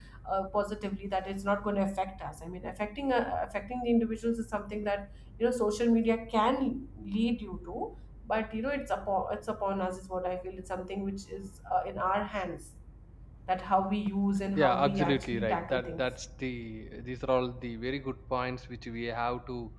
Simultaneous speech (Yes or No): Yes